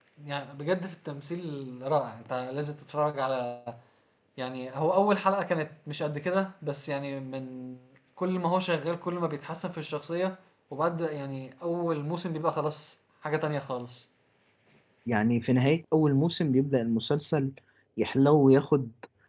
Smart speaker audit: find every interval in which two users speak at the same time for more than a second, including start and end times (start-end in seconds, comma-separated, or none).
none